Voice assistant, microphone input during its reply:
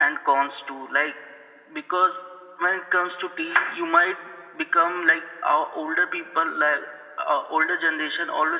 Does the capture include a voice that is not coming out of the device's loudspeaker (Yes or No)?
No